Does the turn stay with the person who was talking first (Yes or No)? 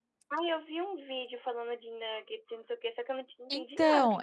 No